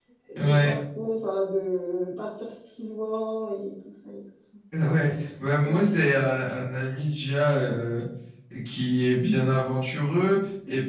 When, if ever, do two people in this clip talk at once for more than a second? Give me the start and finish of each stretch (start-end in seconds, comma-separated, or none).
none